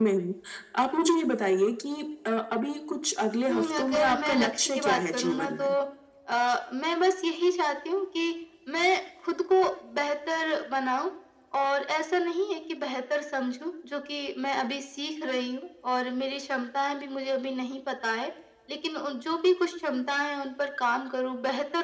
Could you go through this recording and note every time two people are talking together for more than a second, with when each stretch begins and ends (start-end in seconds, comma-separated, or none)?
3.5-5.7